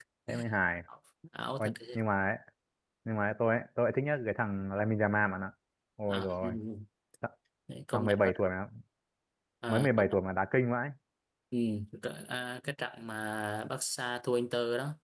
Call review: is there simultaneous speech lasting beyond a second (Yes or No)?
No